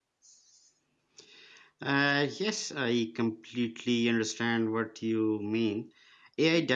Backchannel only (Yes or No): Yes